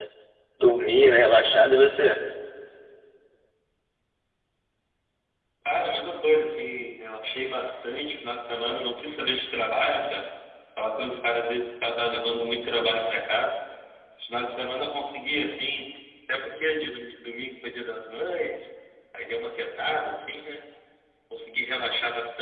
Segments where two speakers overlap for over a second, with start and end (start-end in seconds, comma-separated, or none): none